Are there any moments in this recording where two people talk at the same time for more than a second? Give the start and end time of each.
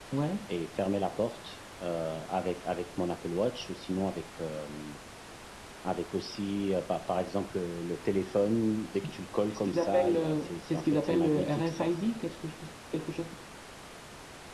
9.7-11.9

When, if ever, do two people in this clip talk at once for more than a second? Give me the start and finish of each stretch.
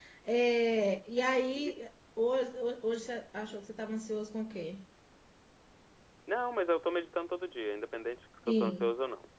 none

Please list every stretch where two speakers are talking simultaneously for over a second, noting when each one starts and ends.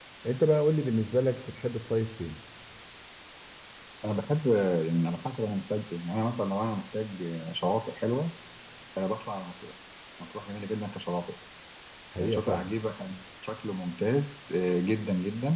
none

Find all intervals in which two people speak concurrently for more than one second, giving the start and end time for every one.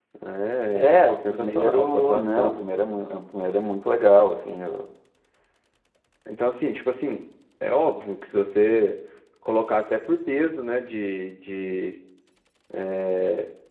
0.7-2.5

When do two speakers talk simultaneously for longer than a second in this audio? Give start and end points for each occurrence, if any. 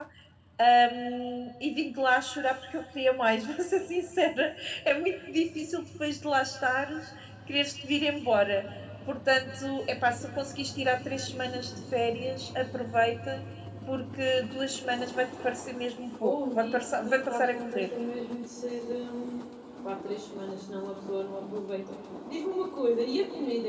16.2-17.9

